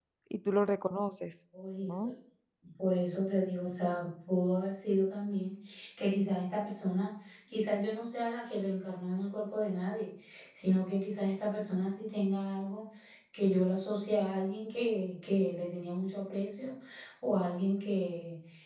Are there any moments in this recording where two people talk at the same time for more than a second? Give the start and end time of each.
none

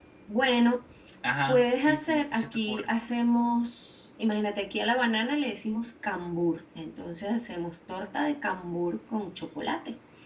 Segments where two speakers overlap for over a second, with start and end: 1.5-2.9

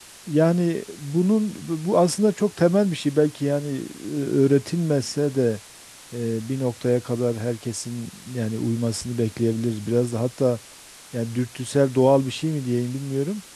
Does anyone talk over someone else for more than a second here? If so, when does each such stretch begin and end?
none

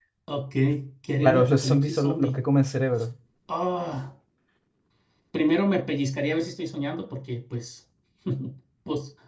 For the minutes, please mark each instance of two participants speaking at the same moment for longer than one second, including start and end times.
1.2-2.4

